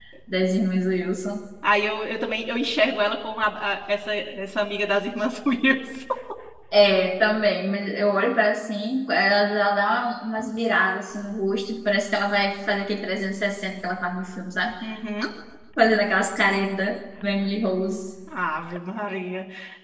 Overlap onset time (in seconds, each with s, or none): none